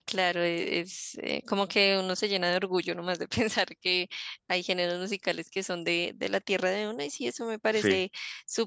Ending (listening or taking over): listening